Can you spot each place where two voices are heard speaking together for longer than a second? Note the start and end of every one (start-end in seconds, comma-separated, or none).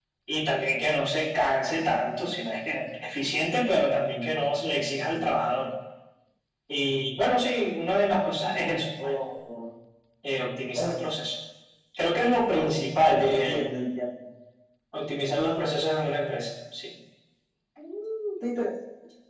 none